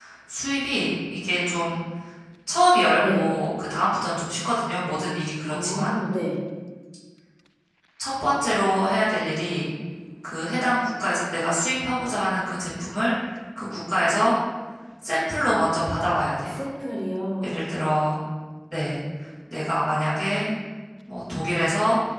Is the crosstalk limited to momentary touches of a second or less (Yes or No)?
Yes